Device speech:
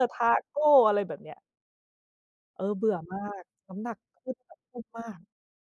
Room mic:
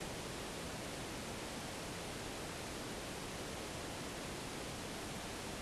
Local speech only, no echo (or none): none